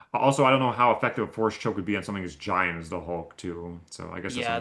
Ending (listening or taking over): taking over